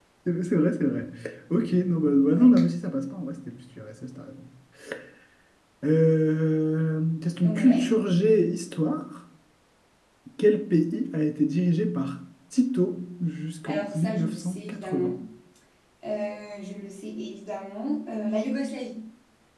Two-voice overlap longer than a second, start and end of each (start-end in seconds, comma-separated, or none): 13.7-15.1